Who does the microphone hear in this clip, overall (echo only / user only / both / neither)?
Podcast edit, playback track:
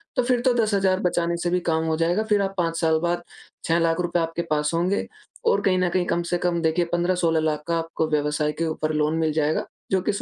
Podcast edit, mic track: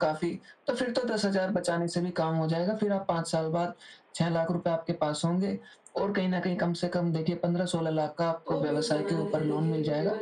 both